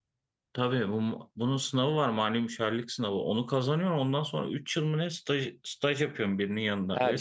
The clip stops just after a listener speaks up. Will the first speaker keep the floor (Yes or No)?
No